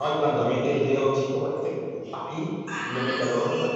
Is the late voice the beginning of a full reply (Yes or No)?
No